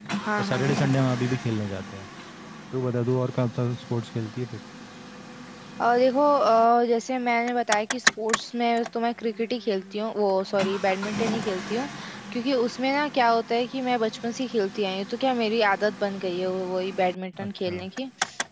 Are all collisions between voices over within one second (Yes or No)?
Yes